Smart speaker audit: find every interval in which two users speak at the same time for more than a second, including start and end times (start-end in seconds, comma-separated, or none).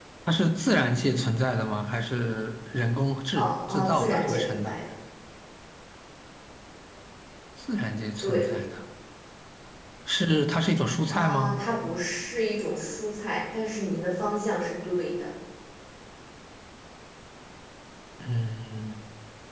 3.4-4.7